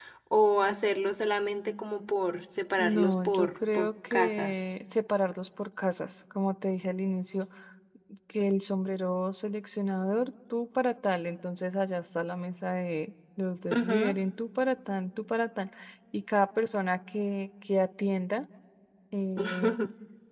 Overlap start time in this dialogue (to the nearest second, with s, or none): 3 s